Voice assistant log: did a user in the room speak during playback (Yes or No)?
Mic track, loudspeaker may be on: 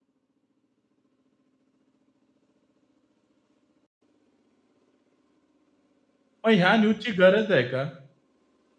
Yes